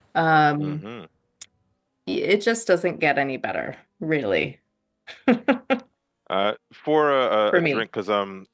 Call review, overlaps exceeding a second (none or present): none